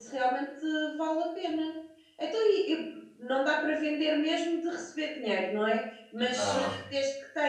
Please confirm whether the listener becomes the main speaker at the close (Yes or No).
No